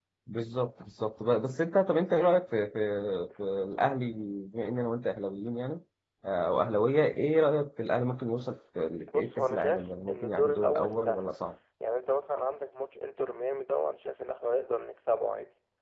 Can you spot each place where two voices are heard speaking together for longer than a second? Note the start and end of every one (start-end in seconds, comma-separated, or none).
9.1-11.3